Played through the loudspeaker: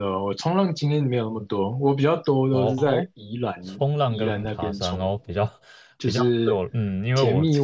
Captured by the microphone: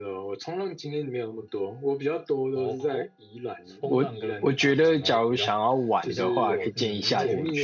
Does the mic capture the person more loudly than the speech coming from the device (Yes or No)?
Yes